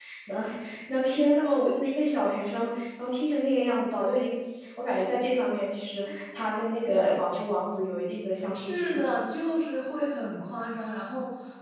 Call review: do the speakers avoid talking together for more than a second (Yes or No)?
Yes